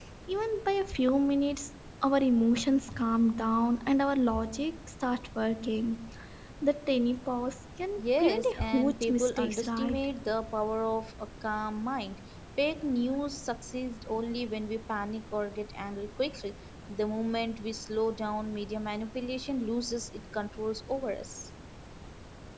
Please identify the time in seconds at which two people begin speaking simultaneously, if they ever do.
8.0 s

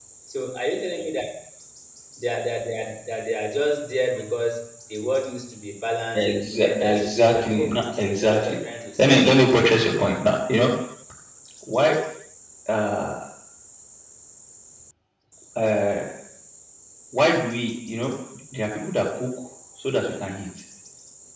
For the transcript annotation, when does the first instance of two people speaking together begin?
6.1 s

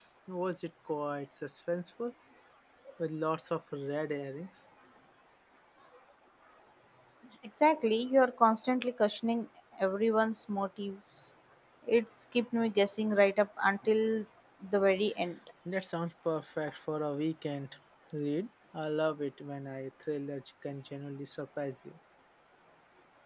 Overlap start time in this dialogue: none

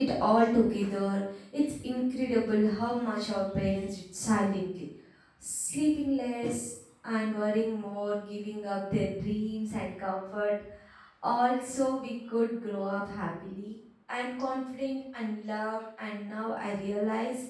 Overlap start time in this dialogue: none

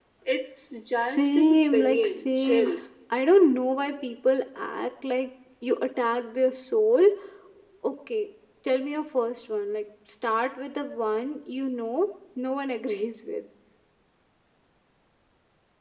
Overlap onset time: 0.9 s

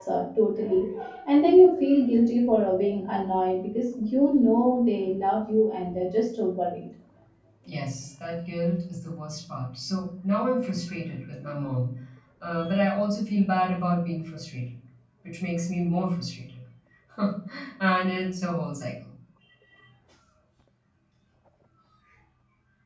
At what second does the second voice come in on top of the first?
none

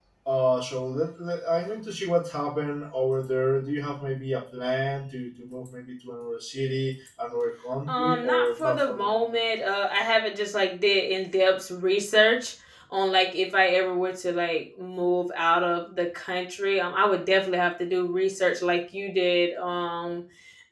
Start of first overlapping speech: 7.9 s

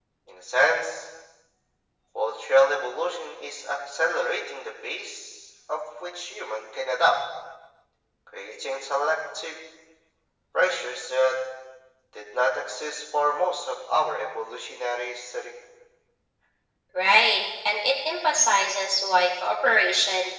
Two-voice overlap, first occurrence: none

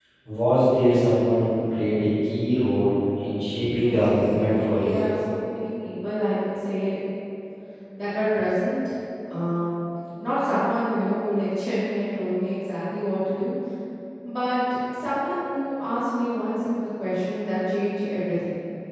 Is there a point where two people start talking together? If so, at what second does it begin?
3.8 s

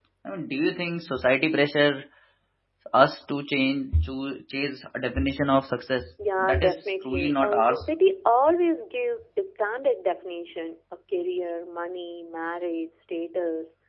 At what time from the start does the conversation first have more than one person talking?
6.2 s

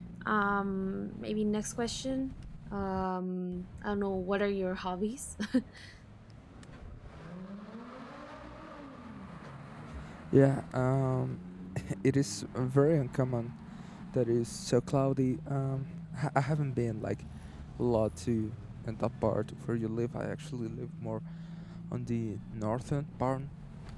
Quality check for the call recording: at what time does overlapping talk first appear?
none

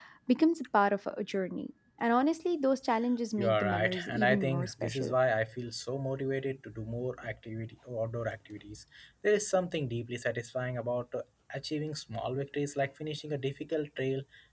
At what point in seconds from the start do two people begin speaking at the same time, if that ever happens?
3.4 s

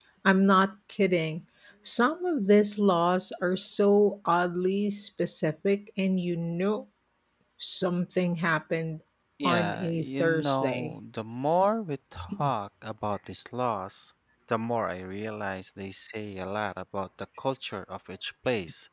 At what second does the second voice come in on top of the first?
9.4 s

